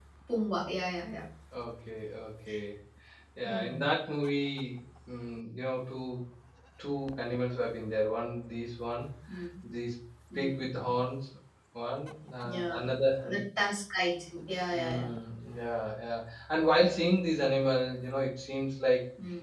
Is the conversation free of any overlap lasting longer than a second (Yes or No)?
Yes